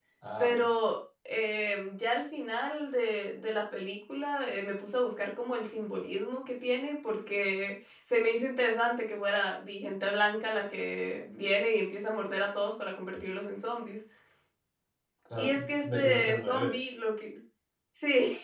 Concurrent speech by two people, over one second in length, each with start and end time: 15.4-16.8

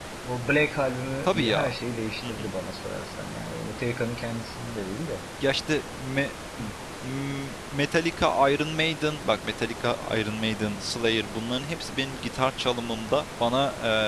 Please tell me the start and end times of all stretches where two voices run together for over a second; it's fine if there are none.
none

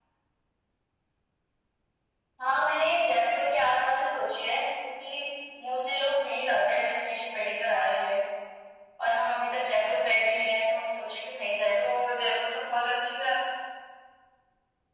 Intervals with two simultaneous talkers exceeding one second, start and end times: none

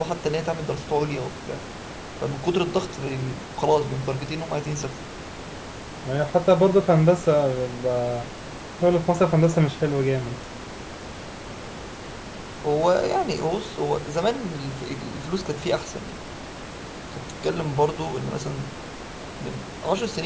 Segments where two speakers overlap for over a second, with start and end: none

